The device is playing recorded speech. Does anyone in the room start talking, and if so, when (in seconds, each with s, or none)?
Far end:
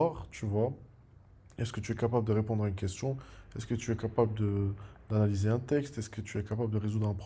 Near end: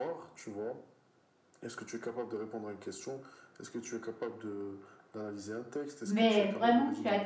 6.0 s